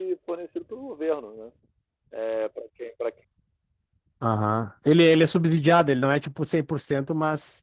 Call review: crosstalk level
none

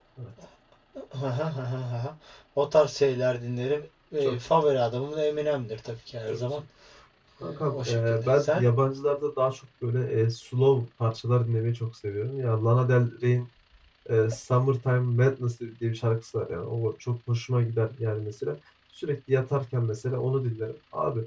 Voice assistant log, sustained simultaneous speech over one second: present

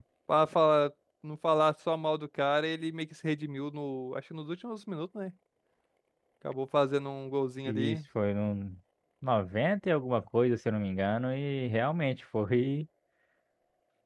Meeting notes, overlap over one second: none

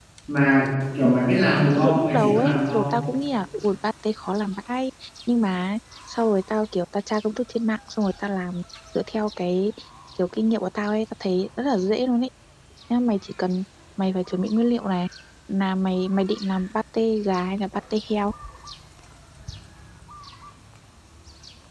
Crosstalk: present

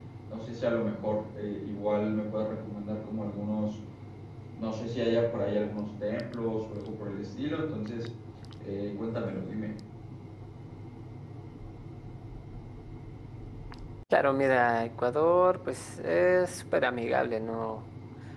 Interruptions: none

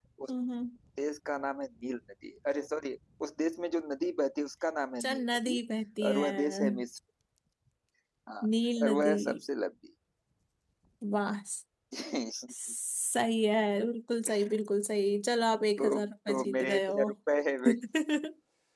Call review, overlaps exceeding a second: present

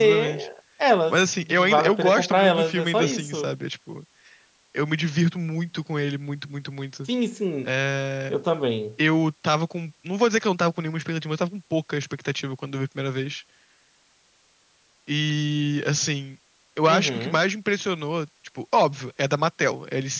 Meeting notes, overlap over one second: present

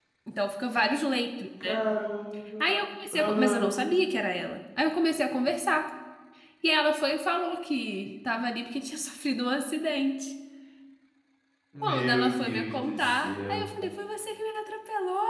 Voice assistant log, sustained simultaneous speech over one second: present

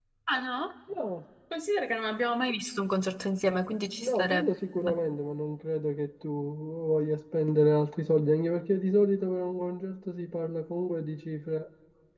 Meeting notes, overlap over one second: none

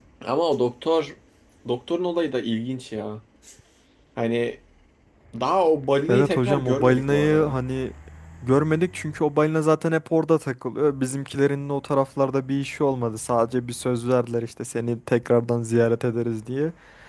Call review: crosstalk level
present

